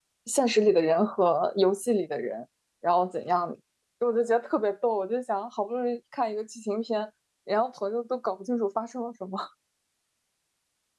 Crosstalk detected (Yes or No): No